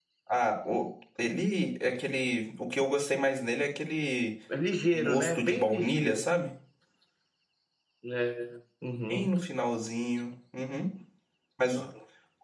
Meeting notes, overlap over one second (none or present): present